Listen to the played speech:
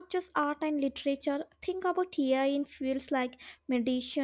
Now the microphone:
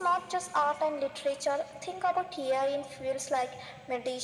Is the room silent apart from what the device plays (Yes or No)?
Yes